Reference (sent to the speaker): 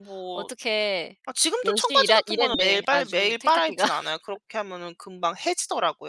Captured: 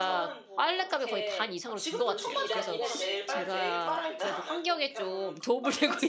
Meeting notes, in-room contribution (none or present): present